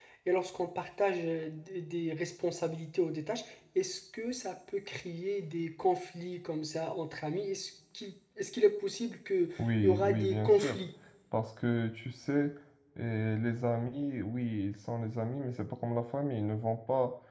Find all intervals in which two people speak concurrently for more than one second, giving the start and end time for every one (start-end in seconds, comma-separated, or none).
9.6-10.8